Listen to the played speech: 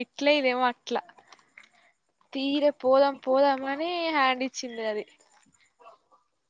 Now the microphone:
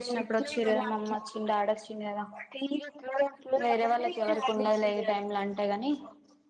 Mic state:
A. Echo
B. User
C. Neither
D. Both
D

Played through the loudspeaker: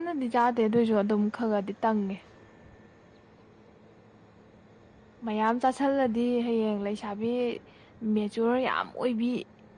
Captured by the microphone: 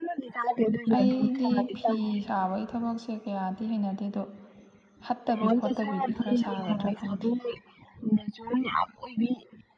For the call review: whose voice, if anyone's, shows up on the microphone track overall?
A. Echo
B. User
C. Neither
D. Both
D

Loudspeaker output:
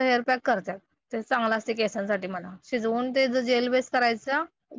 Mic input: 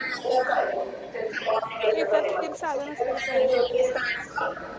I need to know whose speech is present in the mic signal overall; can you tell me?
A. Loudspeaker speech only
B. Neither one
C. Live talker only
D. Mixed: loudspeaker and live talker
D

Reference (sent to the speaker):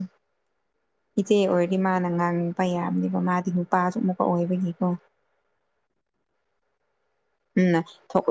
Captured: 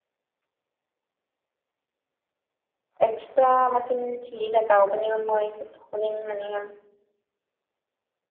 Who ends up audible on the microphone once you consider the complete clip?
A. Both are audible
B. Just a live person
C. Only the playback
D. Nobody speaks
B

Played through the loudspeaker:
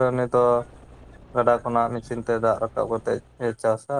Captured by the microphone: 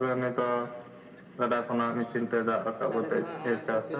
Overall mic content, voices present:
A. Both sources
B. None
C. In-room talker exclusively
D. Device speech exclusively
A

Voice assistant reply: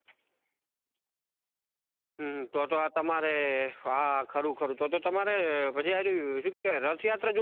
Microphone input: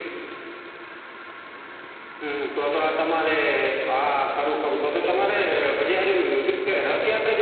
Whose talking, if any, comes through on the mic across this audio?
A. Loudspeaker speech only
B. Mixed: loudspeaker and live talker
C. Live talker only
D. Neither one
A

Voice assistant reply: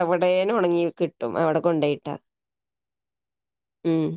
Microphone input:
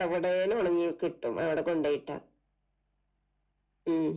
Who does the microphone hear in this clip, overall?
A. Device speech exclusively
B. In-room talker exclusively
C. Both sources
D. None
A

